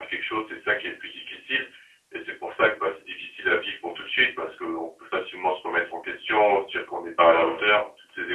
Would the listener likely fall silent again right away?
Yes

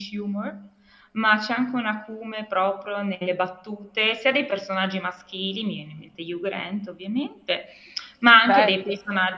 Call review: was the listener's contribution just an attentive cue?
Yes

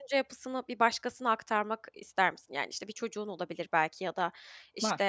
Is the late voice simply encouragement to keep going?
Yes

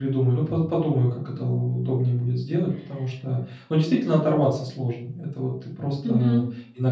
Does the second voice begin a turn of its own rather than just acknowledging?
No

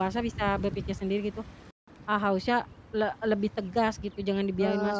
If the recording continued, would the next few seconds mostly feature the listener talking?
Yes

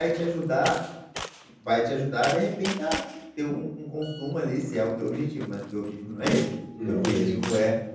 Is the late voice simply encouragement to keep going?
Yes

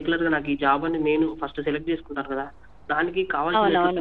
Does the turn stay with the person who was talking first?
No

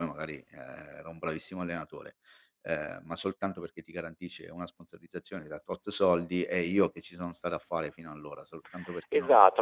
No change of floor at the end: No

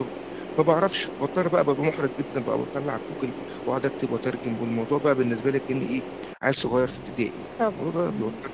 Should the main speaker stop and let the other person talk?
Yes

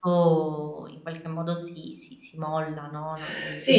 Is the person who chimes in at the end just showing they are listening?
No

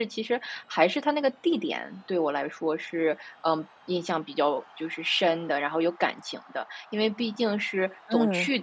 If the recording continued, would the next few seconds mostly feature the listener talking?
No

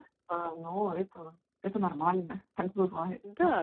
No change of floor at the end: No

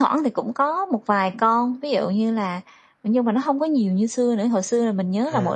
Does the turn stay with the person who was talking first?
Yes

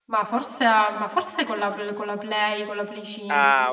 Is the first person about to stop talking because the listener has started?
Yes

